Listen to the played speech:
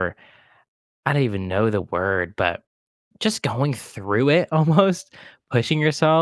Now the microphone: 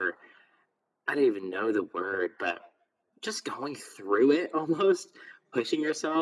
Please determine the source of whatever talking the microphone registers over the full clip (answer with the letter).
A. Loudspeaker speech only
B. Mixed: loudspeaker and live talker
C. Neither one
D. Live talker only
A